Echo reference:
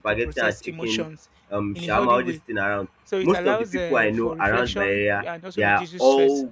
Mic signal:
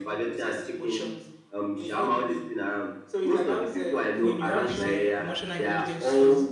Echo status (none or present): present